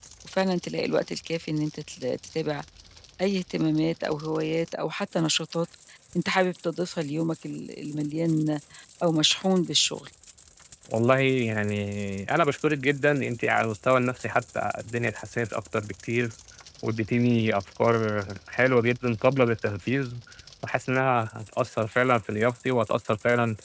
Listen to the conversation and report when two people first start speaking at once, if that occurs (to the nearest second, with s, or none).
none